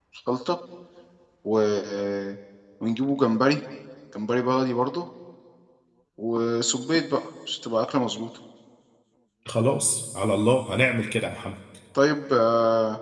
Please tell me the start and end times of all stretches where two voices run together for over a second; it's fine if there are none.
none

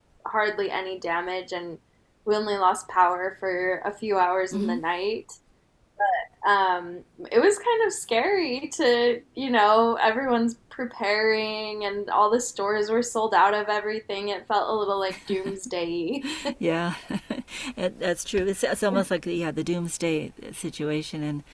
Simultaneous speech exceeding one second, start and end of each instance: none

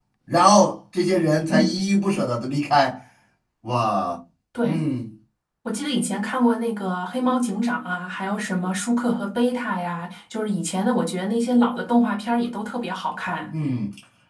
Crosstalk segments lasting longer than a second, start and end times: none

